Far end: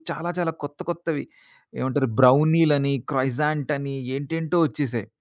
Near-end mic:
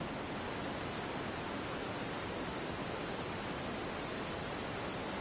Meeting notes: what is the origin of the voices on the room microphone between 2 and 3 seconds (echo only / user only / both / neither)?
neither